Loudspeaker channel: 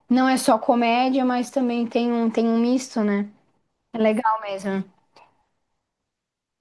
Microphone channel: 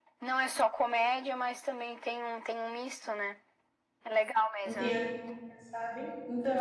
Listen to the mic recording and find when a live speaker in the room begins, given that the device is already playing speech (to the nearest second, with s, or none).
5 s